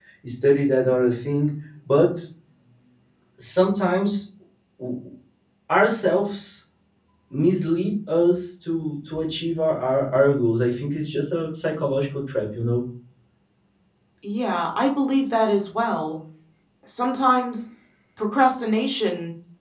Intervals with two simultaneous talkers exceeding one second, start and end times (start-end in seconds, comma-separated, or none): none